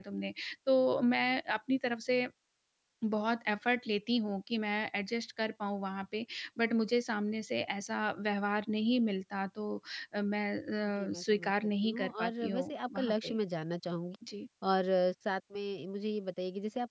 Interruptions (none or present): present